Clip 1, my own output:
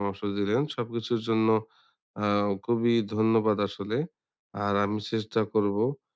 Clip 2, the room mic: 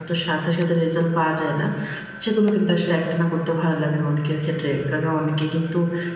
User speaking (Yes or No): Yes